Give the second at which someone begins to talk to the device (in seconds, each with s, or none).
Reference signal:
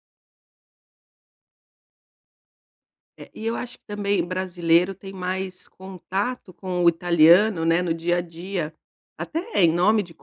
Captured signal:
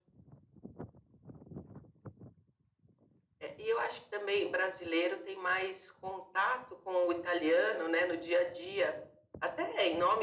none